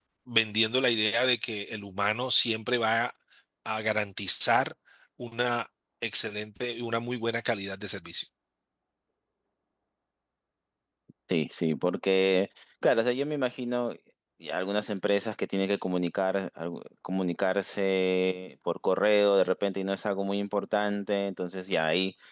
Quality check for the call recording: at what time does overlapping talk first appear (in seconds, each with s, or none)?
none